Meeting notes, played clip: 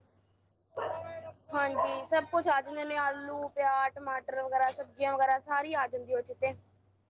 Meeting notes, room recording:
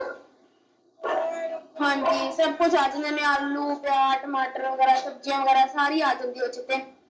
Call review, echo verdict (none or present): present